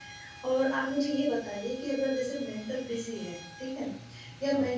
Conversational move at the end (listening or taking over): listening